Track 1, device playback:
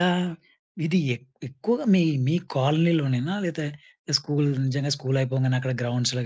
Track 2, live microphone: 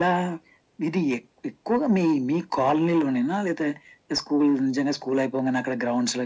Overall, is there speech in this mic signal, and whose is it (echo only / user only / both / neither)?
echo only